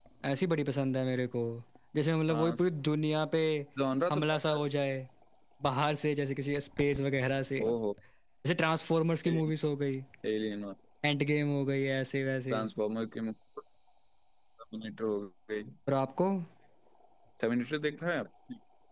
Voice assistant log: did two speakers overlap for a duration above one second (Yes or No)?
No